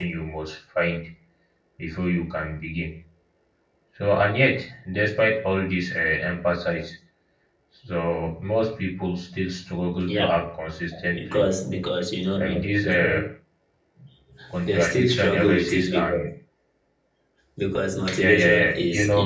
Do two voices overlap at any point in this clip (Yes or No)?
Yes